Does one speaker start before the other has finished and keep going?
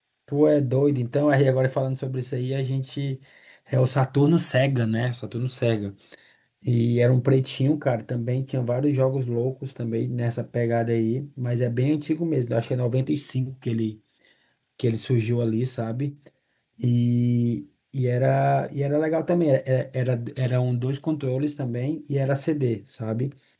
No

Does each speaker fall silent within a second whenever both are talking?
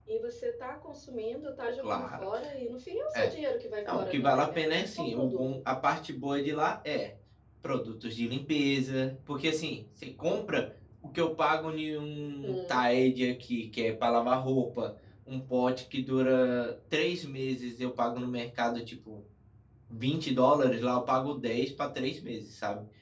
No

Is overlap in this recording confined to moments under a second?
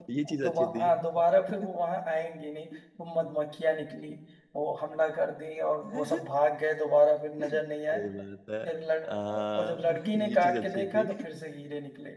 No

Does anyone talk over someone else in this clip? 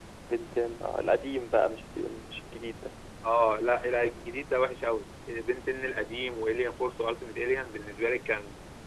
No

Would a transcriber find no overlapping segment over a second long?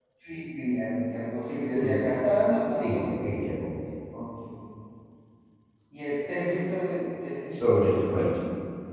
Yes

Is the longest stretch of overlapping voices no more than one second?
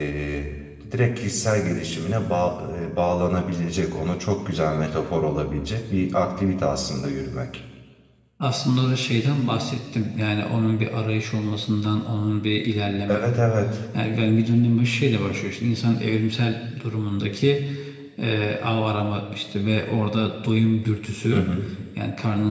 Yes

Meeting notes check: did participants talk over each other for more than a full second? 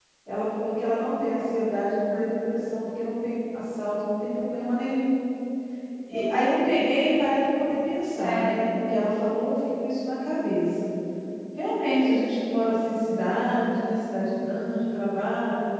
No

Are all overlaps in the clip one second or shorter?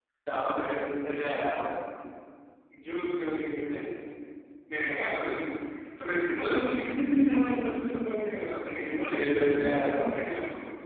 No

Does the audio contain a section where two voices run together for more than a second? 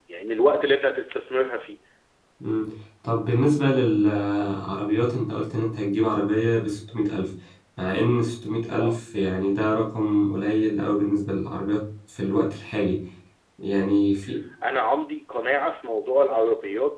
No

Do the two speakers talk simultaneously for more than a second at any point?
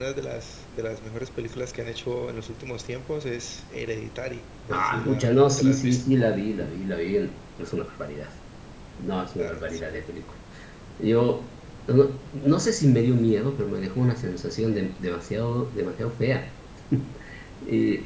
Yes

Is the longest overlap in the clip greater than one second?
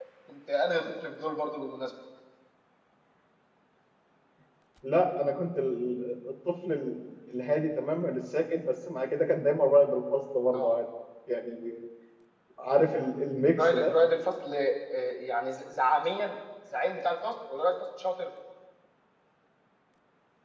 No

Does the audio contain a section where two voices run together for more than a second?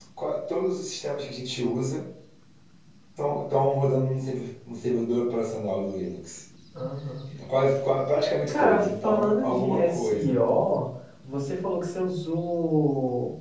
Yes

